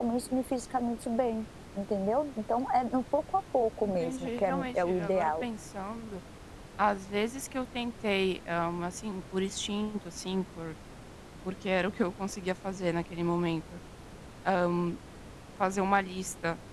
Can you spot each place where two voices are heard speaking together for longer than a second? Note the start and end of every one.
4.0-5.4

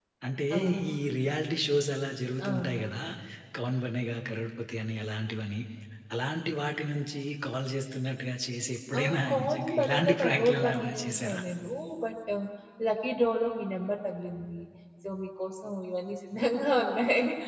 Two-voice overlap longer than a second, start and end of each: 9.0-11.4

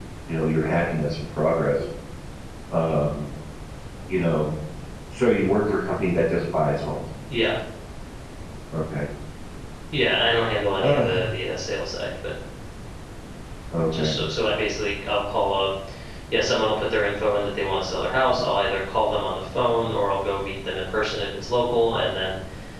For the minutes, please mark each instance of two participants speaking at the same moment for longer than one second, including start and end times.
none

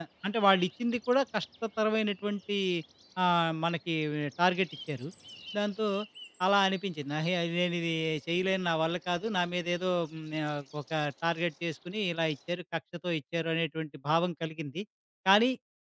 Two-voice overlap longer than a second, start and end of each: none

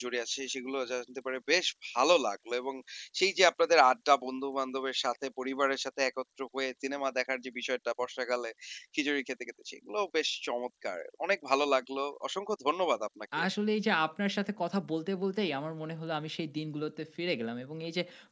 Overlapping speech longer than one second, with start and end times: none

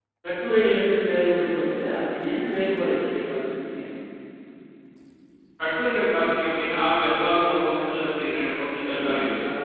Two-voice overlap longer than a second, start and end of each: none

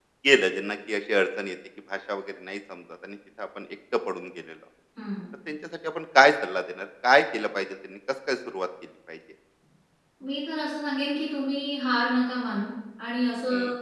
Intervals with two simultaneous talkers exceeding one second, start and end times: none

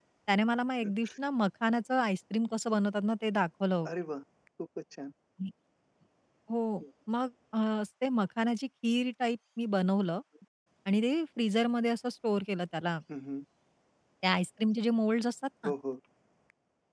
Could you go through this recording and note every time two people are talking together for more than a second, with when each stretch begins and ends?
none

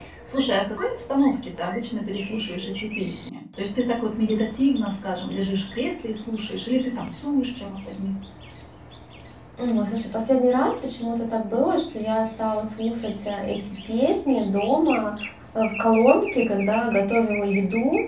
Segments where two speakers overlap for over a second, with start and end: none

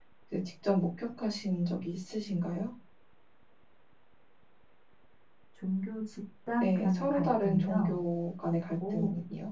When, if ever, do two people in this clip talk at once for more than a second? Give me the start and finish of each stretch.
6.6-7.9

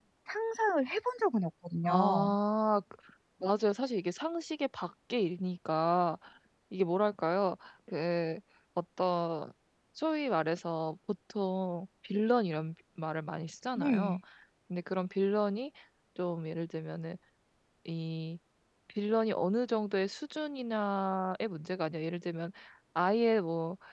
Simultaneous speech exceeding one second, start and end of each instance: none

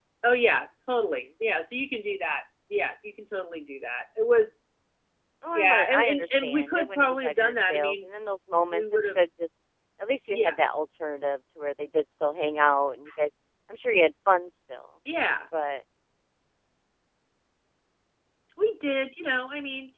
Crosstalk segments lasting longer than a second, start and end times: 5.5-8.1

